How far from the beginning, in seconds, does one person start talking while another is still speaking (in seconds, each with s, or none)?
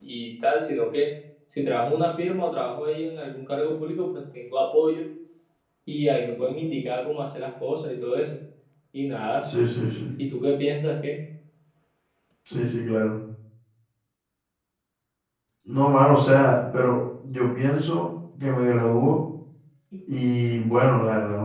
none